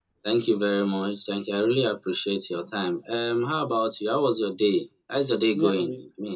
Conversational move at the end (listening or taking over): taking over